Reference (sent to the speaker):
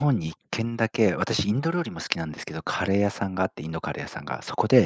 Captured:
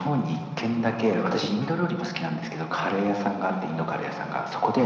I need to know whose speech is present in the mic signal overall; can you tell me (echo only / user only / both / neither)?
echo only